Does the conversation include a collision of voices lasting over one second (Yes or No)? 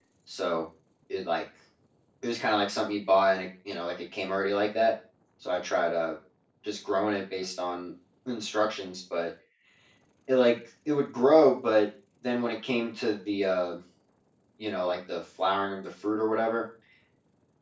No